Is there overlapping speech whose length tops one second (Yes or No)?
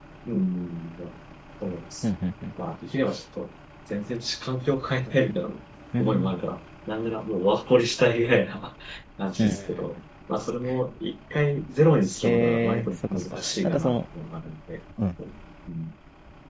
Yes